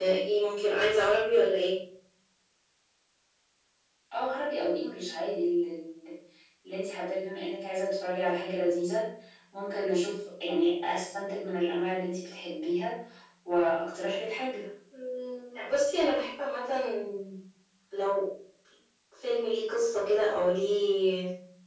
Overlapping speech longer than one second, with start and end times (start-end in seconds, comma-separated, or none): none